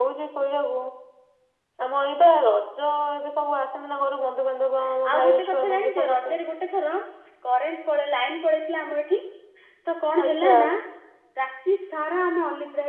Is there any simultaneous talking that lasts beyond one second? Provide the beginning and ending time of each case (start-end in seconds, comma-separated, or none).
5.1-6.4